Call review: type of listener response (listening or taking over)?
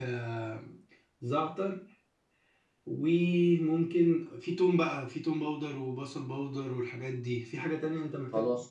taking over